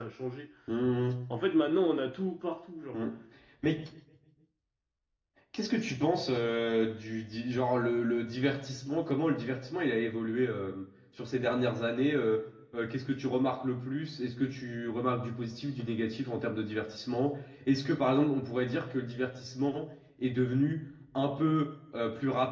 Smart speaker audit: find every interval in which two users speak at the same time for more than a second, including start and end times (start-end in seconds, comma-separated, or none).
none